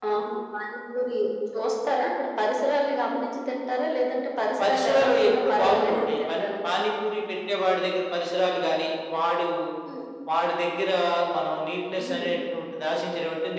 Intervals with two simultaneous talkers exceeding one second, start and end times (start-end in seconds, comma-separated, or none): 4.6-6.6